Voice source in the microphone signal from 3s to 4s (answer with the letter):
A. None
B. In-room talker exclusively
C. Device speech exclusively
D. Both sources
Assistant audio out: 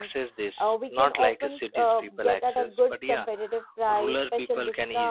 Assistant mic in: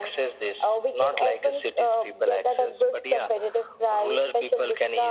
C